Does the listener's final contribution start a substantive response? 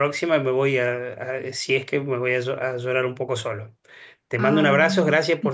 No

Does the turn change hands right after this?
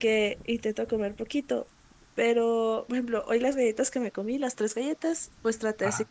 No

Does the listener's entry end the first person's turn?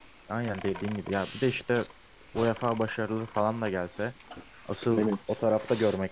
No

